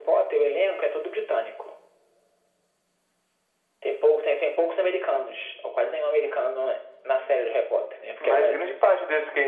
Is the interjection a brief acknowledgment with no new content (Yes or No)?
No